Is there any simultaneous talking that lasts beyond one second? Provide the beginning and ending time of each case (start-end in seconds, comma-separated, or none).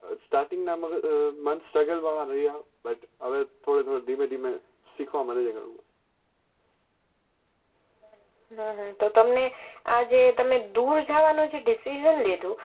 none